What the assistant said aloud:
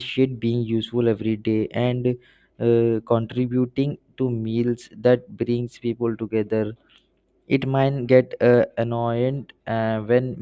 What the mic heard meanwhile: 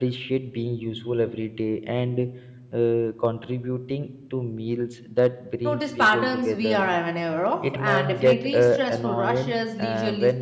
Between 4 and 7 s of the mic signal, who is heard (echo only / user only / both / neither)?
both